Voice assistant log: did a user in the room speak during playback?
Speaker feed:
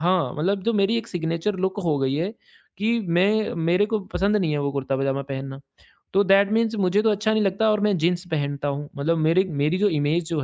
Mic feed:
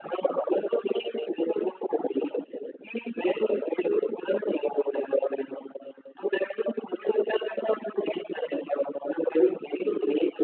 No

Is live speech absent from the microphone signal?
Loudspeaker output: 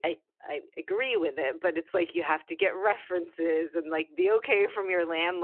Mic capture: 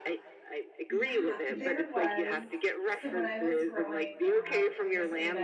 No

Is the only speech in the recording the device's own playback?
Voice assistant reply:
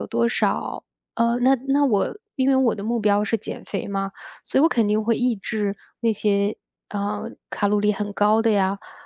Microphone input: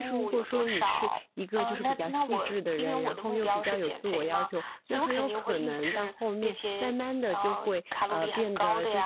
No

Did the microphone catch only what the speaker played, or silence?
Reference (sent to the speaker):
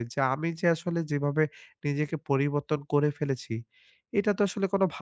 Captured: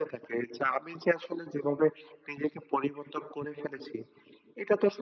Yes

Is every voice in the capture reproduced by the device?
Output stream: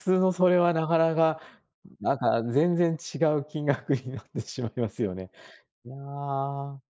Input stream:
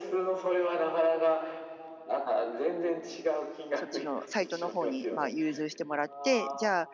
No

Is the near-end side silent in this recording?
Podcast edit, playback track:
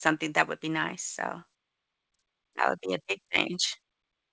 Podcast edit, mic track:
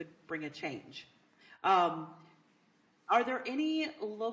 No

